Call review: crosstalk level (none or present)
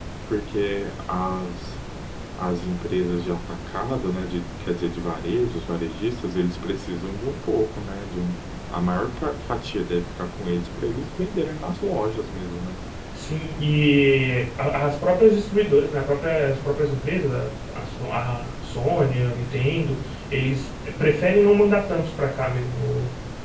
none